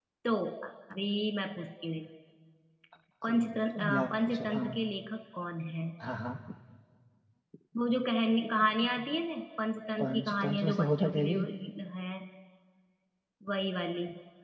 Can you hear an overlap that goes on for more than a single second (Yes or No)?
Yes